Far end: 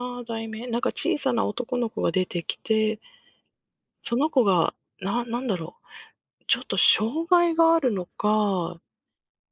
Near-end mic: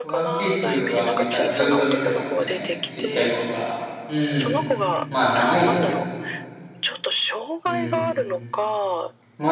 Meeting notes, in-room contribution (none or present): present